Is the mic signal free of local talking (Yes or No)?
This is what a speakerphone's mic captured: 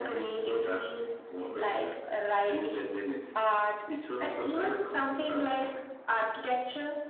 Yes